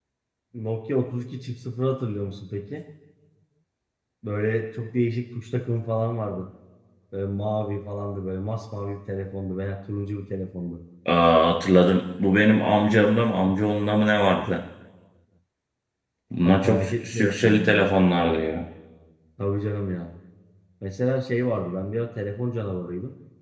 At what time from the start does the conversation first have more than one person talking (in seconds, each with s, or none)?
16.4 s